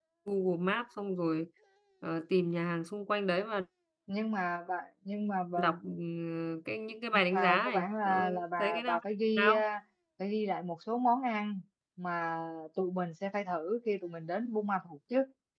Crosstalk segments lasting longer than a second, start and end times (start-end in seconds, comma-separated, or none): 7.1-9.0